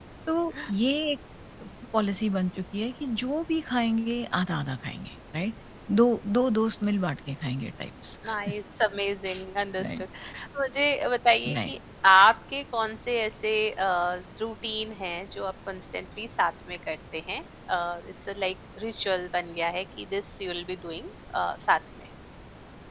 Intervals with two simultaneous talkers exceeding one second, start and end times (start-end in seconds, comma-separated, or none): none